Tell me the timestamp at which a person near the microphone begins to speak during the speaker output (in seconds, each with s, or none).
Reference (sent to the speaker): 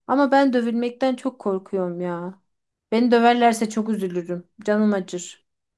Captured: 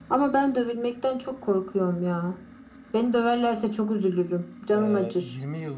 4.7 s